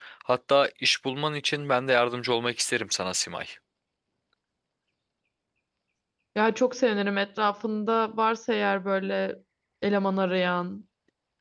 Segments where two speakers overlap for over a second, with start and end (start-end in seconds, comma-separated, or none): none